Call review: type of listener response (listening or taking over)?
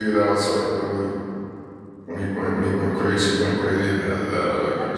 taking over